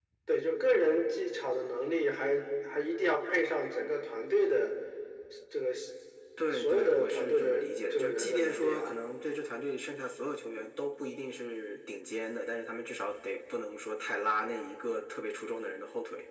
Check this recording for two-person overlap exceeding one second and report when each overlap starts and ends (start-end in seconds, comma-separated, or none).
6.5-8.9